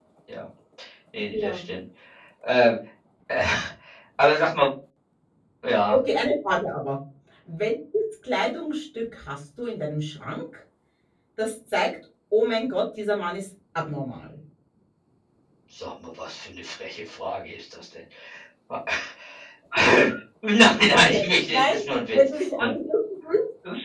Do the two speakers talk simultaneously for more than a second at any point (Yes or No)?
Yes